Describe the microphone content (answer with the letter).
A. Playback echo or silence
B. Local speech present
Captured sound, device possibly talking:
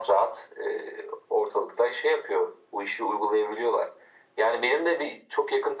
A